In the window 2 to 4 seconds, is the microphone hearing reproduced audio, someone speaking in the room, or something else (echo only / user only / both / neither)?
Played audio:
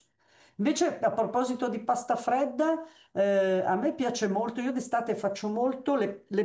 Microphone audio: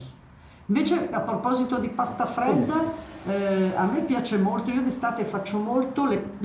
both